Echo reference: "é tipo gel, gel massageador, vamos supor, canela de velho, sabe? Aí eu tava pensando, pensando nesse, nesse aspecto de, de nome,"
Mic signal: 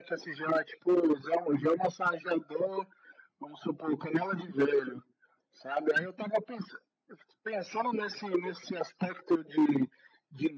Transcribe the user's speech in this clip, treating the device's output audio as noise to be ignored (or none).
none